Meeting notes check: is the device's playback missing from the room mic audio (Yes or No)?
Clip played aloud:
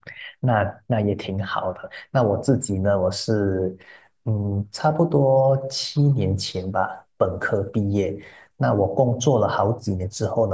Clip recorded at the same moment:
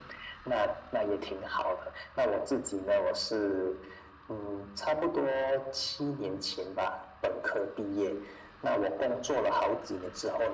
No